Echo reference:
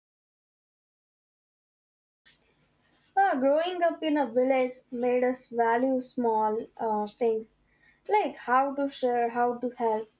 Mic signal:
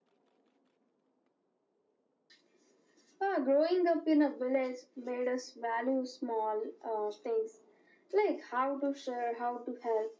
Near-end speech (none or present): none